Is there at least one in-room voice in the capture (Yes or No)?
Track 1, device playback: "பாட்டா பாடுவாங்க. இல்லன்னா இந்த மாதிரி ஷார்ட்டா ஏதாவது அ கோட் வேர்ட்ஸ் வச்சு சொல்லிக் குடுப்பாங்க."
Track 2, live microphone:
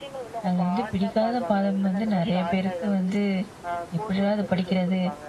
Yes